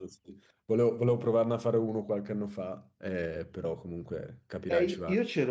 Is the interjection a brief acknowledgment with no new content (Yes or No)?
No